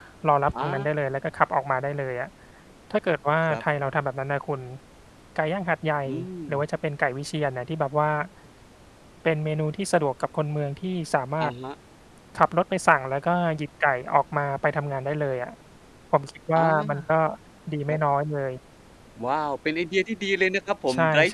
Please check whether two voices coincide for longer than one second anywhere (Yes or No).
No